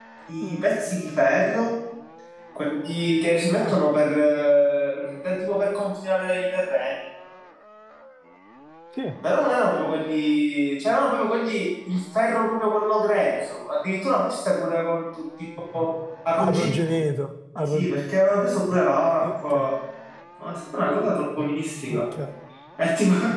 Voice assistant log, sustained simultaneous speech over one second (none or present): none